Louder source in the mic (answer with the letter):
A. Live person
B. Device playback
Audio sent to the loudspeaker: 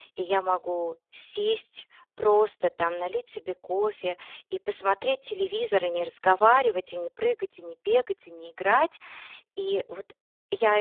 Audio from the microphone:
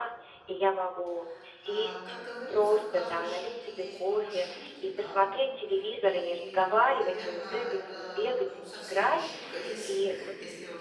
B